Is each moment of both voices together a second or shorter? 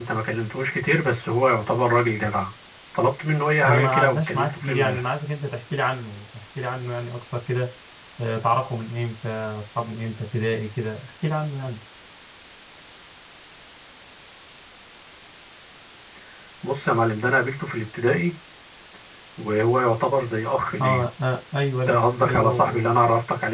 No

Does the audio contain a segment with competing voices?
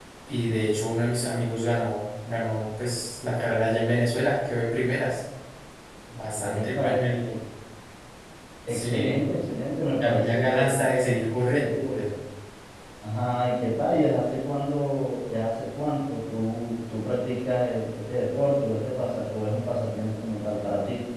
Yes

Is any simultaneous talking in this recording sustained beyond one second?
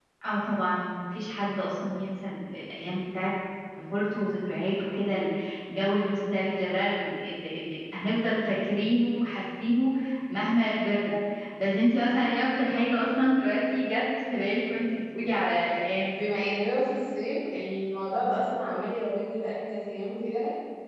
No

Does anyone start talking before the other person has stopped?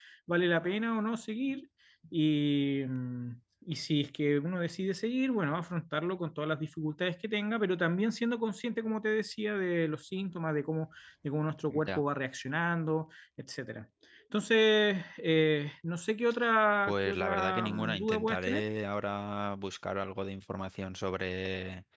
Yes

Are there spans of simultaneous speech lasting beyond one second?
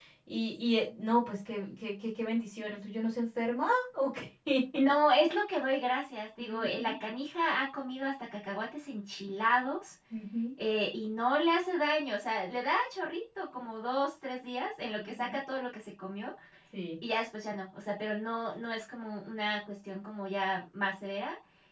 No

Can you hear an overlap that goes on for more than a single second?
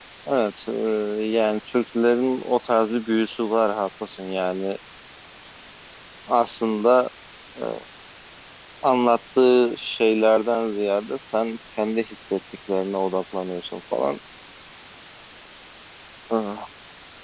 No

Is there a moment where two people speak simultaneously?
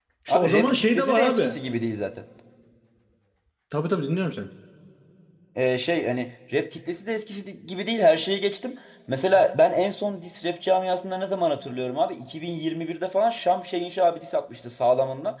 Yes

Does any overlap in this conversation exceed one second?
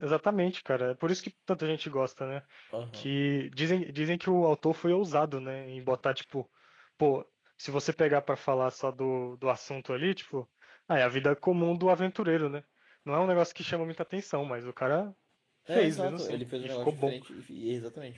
Yes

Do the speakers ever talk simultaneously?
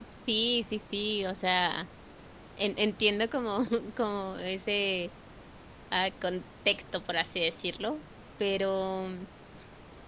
No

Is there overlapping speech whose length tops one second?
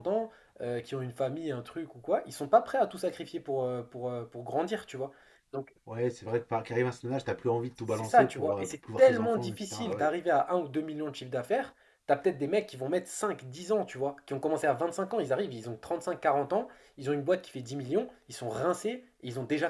Yes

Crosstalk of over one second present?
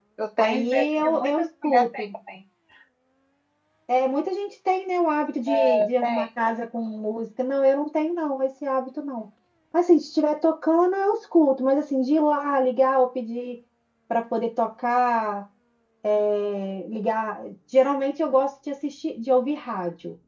Yes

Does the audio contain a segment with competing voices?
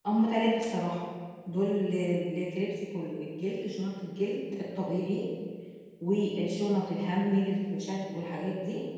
No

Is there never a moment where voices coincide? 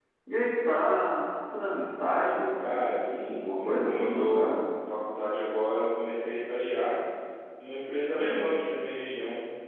No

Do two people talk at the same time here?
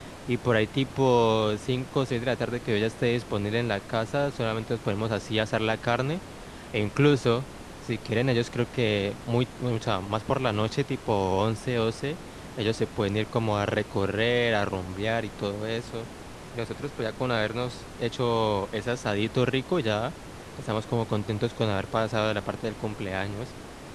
No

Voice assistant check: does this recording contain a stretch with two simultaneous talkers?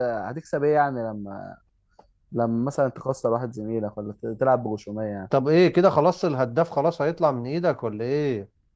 No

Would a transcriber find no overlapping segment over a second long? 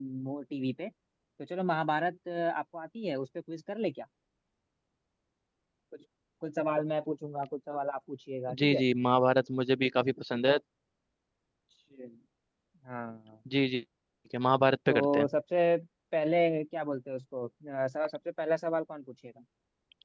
Yes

